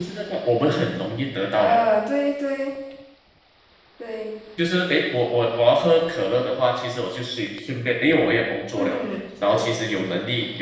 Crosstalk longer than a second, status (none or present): none